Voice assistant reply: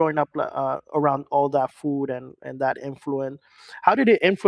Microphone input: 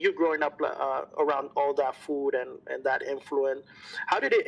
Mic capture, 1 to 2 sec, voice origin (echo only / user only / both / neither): echo only